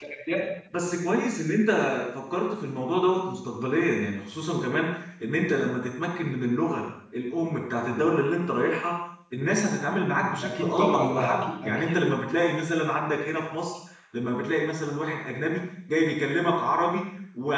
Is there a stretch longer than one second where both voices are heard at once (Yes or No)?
Yes